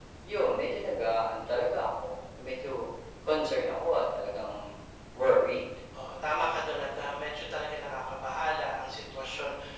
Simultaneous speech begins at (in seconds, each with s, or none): none